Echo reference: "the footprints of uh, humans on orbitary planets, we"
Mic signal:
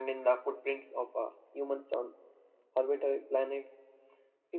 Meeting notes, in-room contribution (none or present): none